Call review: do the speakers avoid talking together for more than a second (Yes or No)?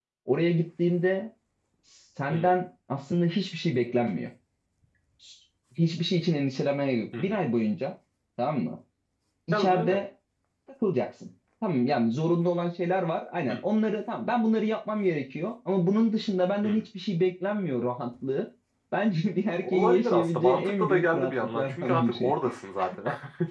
No